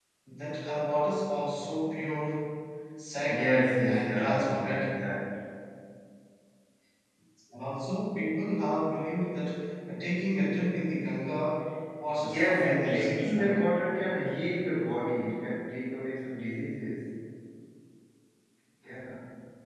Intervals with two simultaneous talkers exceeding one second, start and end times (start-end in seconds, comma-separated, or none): 3.2-5.0, 12.2-13.6